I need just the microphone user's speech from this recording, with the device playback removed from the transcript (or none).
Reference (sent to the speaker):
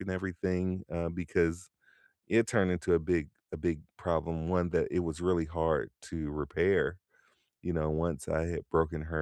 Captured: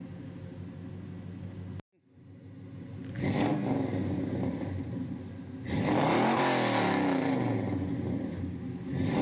none